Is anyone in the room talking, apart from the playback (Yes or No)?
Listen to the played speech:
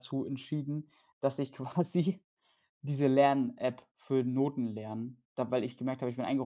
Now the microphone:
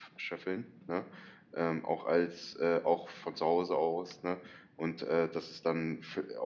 Yes